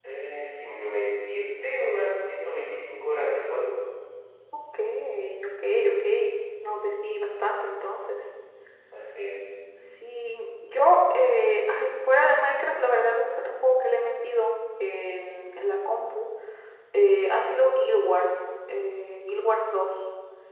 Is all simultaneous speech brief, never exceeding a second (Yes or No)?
Yes